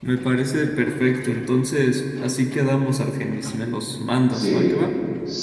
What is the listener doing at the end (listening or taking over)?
taking over